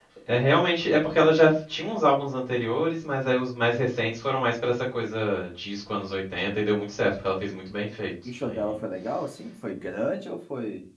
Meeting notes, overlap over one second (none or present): none